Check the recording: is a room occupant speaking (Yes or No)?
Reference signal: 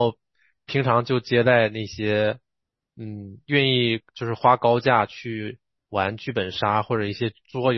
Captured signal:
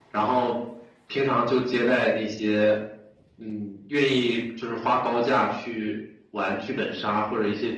No